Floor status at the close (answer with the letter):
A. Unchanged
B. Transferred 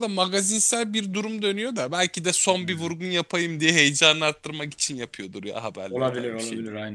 B